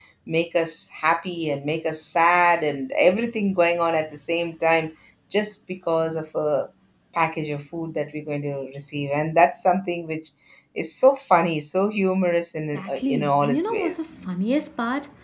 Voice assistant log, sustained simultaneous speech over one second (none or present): present